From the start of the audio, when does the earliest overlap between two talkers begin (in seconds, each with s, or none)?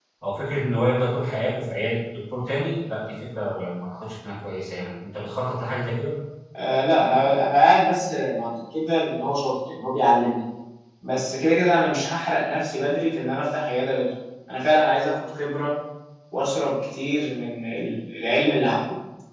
none